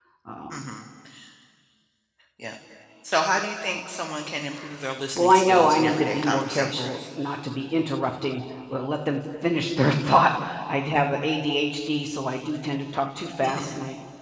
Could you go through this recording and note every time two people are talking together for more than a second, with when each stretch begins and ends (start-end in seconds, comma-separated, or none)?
5.2-7.0